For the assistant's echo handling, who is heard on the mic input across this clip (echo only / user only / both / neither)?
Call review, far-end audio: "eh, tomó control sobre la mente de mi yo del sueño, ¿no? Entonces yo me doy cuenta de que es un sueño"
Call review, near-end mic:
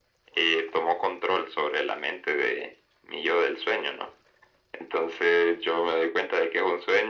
echo only